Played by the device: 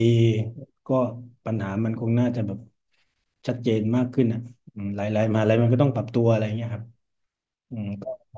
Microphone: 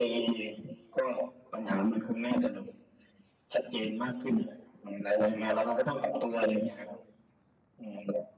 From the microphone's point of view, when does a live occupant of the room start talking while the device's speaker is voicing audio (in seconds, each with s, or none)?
none